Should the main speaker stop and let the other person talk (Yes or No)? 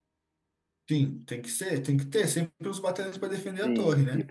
Yes